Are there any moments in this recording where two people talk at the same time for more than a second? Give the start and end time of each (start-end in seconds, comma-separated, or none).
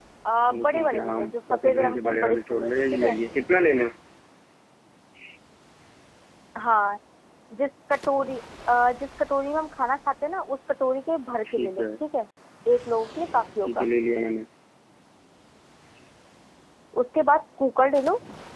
0.5-3.2